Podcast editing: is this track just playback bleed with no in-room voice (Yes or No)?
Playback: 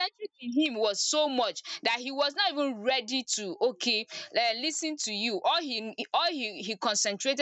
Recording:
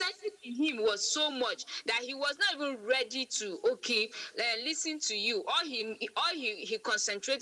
Yes